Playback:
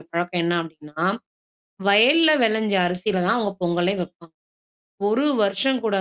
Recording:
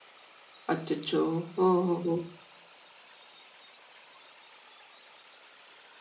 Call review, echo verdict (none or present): none